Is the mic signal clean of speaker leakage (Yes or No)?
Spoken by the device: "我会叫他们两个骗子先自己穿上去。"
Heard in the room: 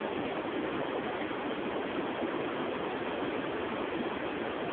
Yes